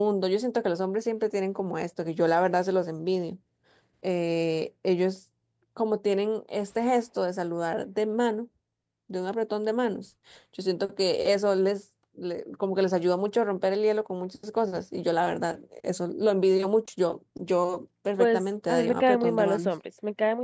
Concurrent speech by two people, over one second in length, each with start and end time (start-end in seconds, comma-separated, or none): 18.2-19.7